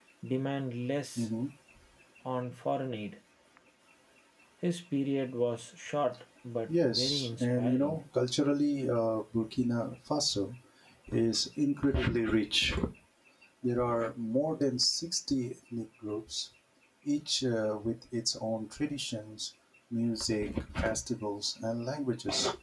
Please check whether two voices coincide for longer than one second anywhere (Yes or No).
Yes